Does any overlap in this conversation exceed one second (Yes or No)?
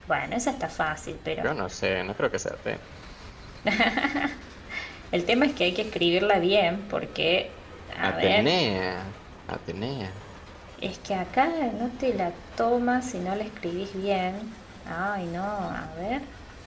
No